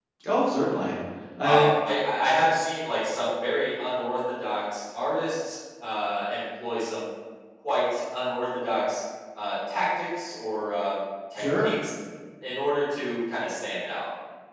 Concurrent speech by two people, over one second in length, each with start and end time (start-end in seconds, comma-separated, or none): none